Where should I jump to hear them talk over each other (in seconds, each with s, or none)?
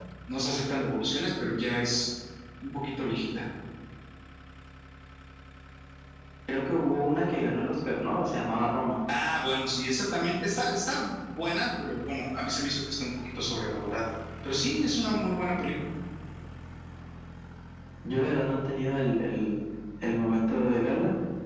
none